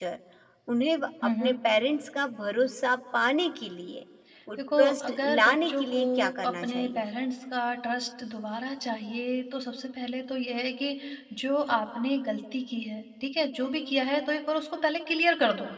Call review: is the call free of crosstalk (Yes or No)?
No